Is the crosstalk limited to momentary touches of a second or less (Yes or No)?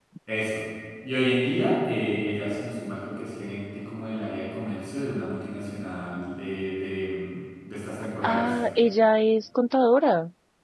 Yes